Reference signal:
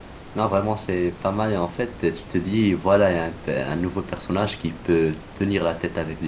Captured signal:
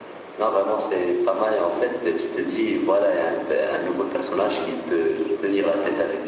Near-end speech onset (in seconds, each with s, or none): none